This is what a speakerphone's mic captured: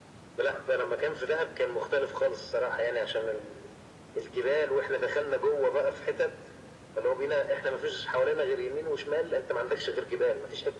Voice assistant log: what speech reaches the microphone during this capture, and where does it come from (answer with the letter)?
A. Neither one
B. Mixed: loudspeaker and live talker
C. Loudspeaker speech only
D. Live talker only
C